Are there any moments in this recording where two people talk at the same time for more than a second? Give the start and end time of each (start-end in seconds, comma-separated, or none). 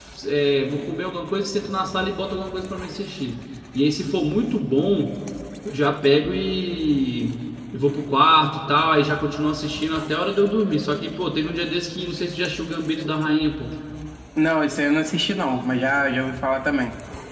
none